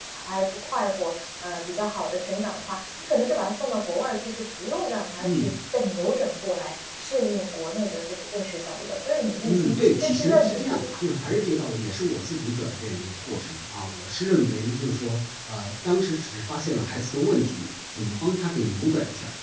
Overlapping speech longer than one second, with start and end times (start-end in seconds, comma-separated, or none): 9.4-11.0